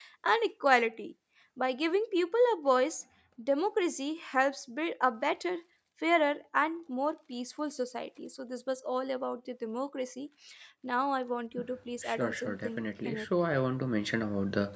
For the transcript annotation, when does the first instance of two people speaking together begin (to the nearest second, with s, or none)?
12 s